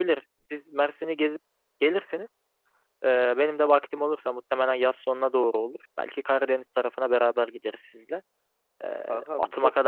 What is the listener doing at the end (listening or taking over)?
listening